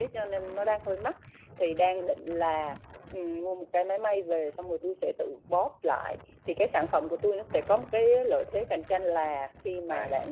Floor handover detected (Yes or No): No